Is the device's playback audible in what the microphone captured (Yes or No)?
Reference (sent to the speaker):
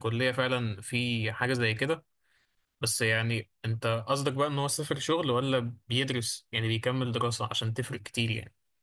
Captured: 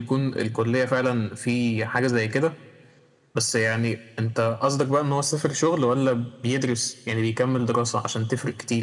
Yes